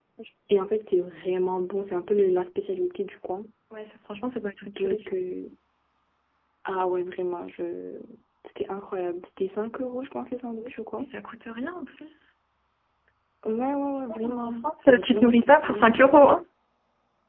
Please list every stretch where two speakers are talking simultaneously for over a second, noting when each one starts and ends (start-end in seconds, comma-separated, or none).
14.1-16.2